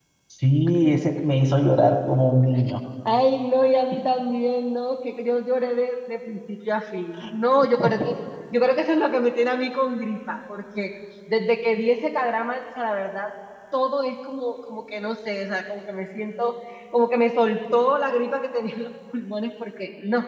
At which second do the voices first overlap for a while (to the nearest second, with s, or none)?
none